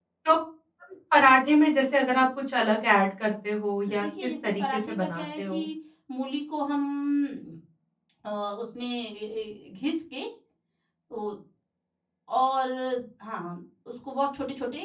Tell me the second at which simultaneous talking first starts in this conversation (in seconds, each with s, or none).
3.9 s